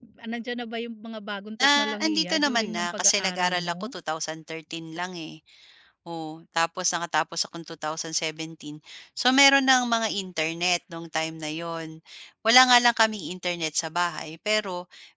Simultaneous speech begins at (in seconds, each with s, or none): 1.6 s